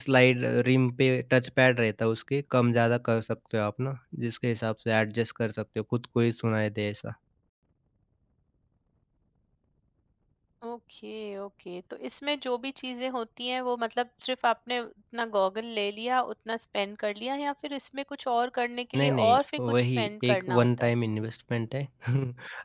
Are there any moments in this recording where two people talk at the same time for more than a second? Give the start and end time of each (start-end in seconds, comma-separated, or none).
18.9-20.9